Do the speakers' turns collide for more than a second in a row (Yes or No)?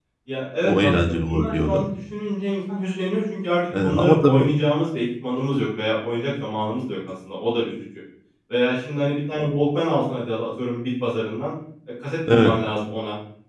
Yes